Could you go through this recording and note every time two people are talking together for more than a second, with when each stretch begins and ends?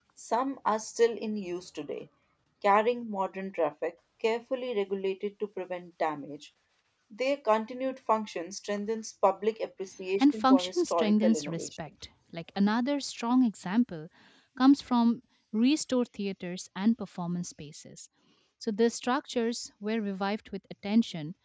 10.2-11.7

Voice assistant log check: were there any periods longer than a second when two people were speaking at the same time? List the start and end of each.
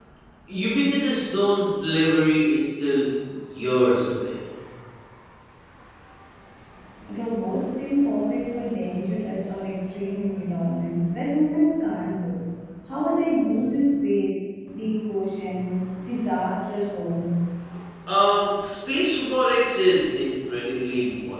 none

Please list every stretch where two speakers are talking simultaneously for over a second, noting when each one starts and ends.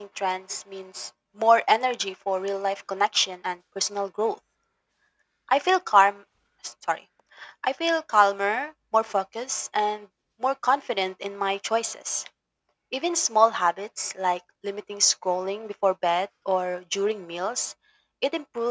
none

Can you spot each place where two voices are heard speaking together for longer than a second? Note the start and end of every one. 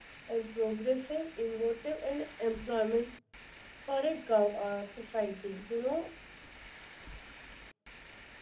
none

